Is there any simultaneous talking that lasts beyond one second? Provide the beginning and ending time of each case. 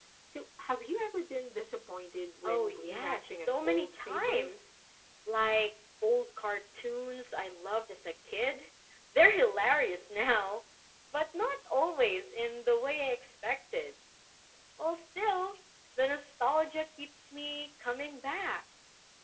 2.5-4.5

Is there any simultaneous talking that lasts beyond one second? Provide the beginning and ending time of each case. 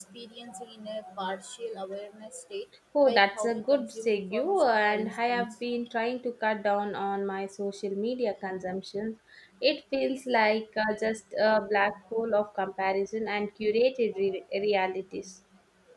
3.0-5.5

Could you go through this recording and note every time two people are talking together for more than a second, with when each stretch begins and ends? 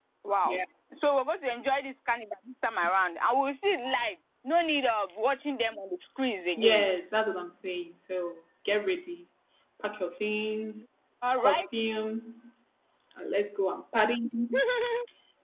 none

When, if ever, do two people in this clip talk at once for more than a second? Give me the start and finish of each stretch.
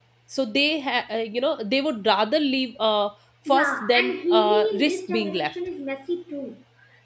3.5-5.5

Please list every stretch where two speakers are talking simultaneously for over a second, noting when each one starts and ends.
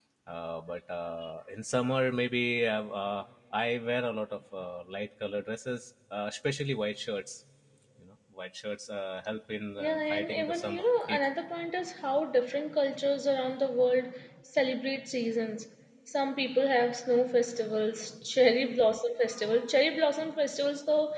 9.8-11.3

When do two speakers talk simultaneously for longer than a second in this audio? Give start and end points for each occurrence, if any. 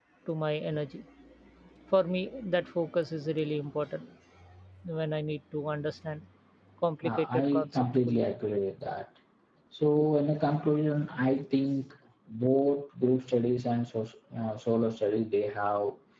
7.0-8.2

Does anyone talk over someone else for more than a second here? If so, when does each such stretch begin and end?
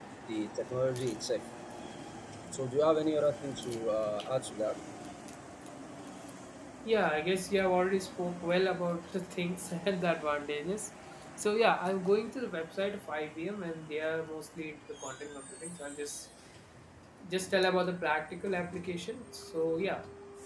none

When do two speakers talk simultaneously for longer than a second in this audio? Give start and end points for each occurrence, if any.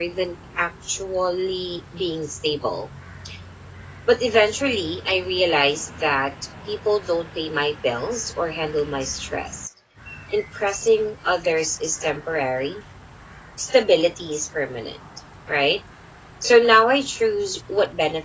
none

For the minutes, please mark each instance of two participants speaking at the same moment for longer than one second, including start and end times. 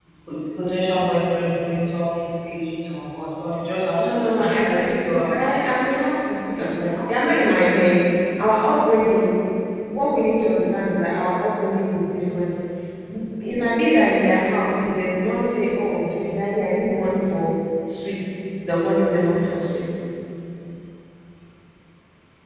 4.0-5.8

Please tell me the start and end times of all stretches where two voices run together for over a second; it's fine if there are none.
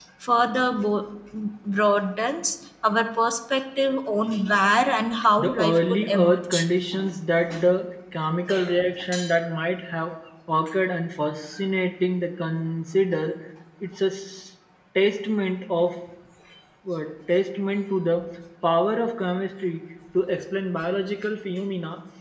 5.4-6.6

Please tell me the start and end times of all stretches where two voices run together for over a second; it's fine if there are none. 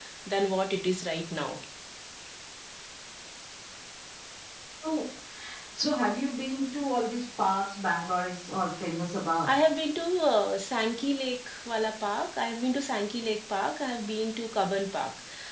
none

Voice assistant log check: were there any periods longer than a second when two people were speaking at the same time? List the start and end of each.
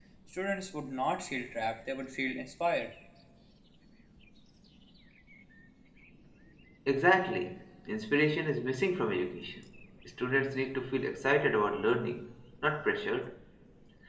none

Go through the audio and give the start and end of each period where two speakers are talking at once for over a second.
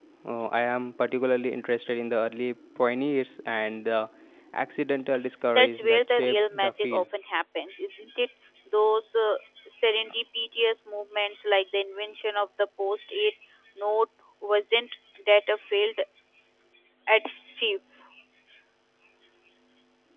5.5-7.0

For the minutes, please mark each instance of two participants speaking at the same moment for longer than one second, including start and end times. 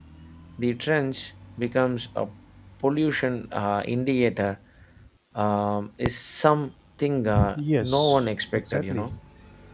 7.5-9.1

